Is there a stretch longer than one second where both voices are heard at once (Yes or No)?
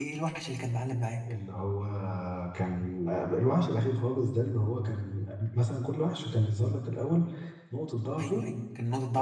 No